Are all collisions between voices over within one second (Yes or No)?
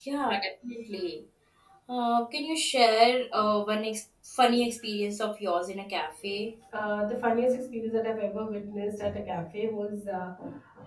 Yes